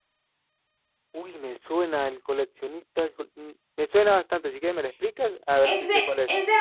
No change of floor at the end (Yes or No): No